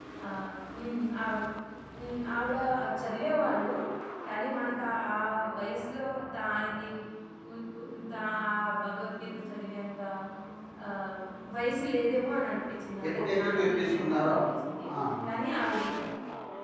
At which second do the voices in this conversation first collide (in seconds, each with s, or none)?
13.0 s